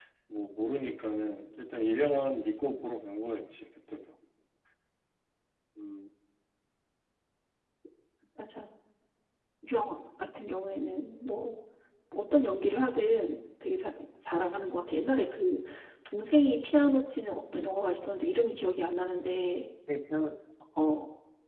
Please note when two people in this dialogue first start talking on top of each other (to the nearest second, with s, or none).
none